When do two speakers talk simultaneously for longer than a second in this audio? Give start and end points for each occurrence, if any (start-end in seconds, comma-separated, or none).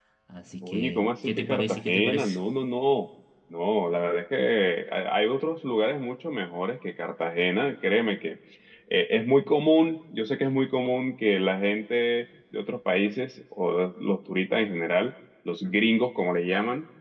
0.6-2.3